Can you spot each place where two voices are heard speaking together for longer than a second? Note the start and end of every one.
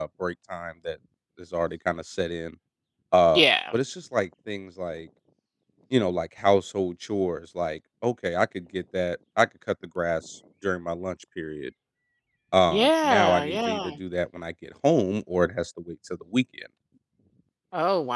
12.7-13.9

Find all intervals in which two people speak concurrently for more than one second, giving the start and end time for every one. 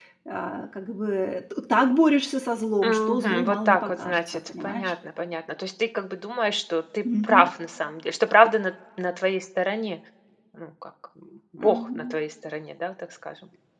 2.8-4.9

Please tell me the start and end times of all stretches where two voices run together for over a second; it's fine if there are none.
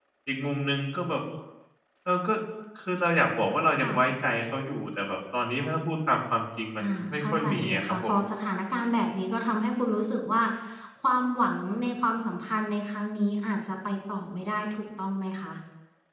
6.8-8.1

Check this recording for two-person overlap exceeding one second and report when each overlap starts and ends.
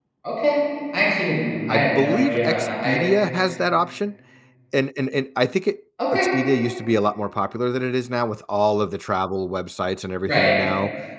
1.7-3.0

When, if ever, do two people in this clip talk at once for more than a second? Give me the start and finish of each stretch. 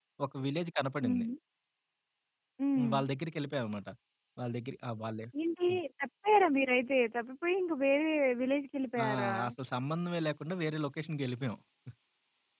none

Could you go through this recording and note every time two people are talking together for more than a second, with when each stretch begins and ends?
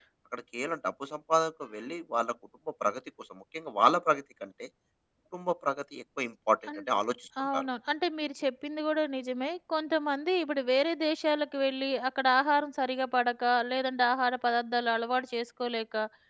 none

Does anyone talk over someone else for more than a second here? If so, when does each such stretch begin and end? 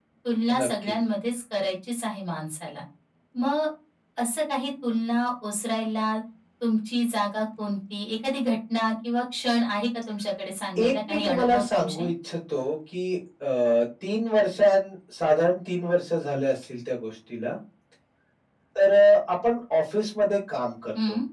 10.8-12.1

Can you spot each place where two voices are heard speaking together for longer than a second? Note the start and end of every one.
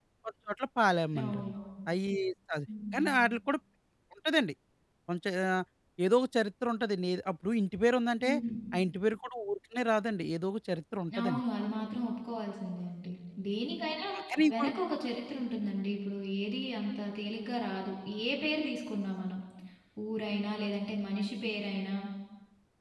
none

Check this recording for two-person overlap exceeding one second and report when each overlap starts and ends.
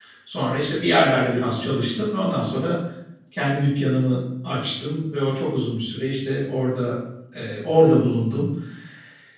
none

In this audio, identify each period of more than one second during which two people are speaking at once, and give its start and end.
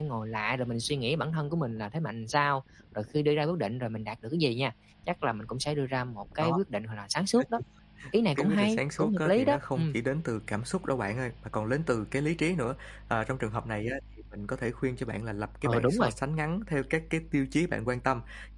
8.4-9.8

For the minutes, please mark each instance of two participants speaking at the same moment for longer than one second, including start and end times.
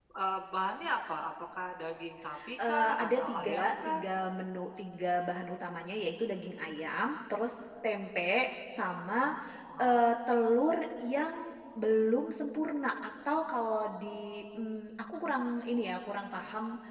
2.6-4.0

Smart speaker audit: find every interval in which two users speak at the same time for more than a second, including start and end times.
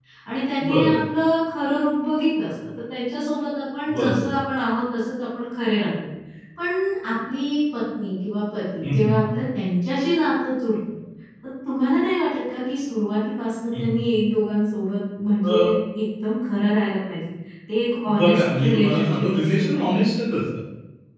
18.2-20.0

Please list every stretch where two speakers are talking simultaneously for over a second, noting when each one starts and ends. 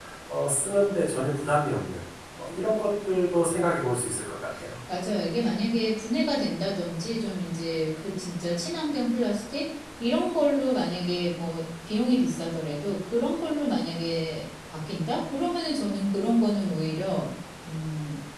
none

